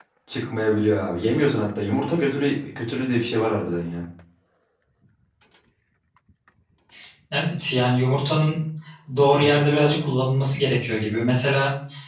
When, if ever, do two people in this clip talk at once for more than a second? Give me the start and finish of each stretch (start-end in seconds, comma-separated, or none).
none